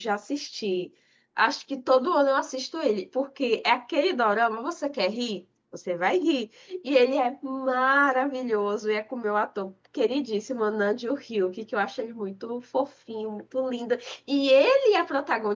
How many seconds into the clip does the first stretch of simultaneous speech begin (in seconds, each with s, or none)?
none